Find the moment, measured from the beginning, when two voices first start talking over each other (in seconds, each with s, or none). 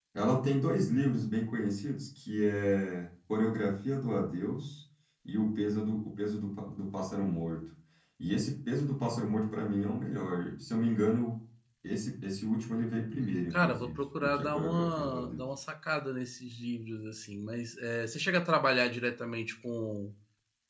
13.5 s